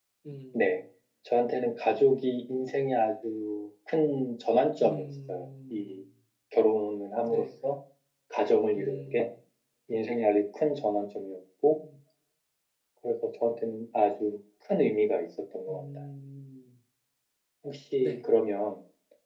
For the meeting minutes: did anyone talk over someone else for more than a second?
Yes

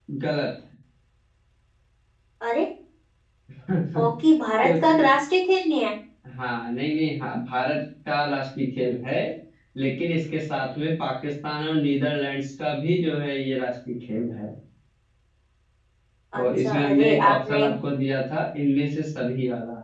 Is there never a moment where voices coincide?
No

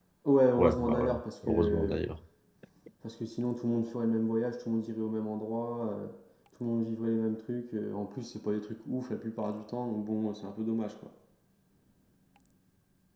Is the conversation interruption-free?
No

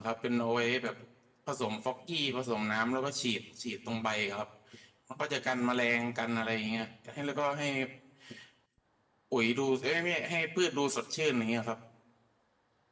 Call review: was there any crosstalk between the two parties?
No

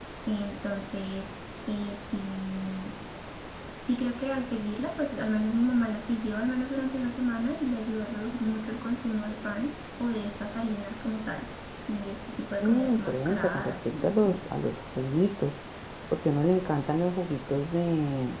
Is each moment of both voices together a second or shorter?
No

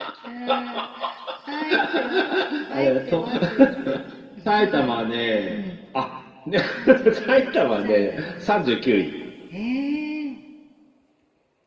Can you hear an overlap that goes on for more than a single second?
Yes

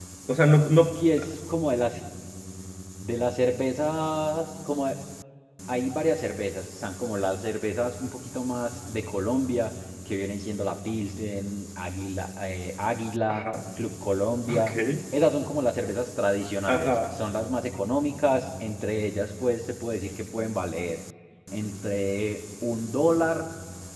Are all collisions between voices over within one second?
Yes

